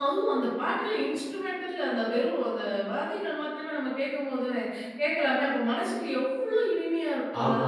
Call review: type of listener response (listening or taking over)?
taking over